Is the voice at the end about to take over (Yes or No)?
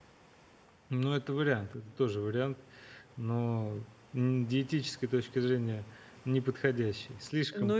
Yes